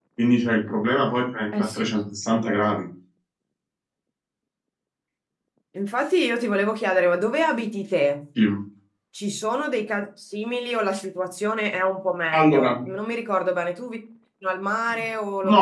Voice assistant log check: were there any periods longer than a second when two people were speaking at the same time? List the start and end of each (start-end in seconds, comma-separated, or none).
none